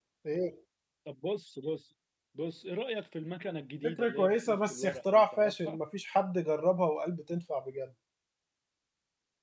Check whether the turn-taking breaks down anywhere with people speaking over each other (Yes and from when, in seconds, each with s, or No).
Yes, from 3.8 s